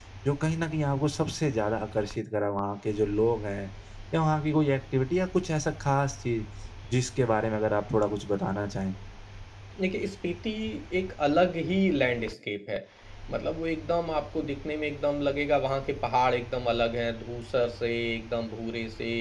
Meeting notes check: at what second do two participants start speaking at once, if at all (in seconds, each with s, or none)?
none